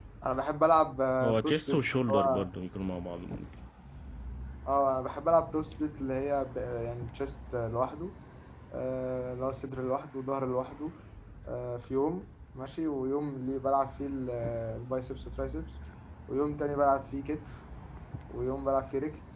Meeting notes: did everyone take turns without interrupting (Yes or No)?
No